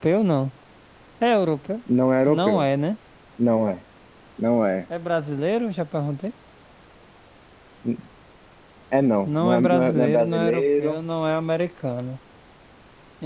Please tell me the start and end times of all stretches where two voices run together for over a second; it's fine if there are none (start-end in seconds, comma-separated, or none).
9.2-11.0